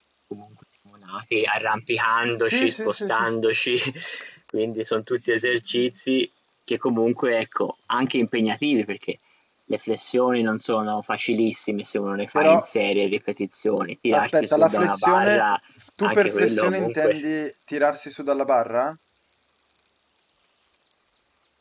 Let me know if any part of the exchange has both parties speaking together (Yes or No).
Yes